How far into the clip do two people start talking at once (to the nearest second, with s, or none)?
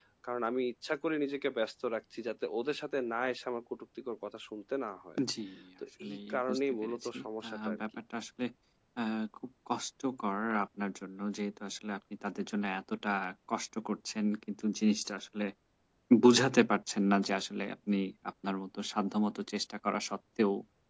6 s